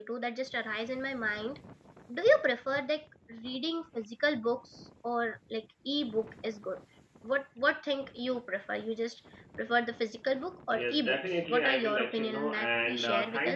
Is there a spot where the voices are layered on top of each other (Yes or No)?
Yes